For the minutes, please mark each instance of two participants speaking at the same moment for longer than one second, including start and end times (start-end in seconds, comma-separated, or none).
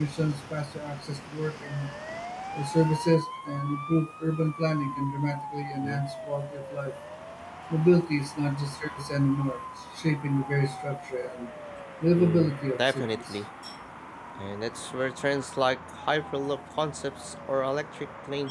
12.2-13.4